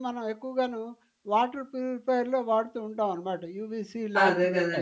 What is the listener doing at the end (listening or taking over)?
taking over